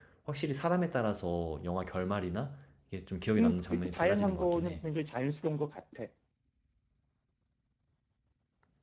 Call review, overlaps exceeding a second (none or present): present